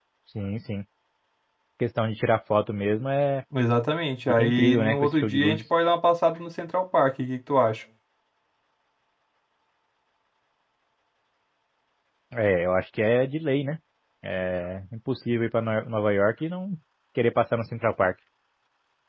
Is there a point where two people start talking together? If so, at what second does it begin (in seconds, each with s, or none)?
4.3 s